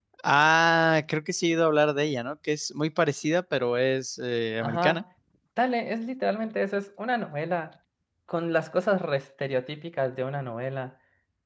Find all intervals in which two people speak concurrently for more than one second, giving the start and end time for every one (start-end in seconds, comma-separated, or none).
none